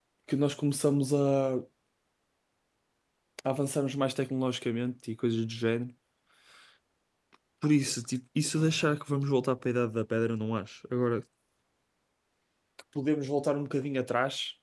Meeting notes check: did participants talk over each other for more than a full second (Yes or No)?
No